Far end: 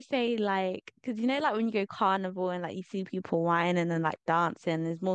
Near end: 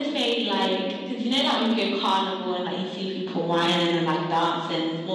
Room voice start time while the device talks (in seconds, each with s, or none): none